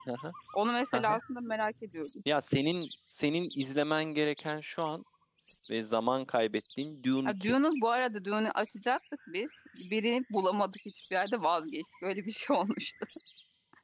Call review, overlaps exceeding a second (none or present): none